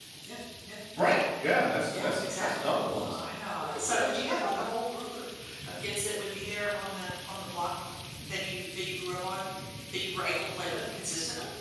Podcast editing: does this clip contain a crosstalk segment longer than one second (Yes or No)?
Yes